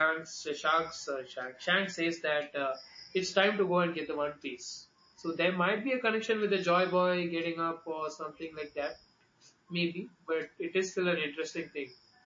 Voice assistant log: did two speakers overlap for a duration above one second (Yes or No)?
No